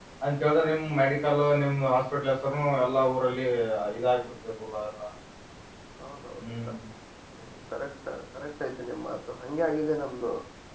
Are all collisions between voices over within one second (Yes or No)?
Yes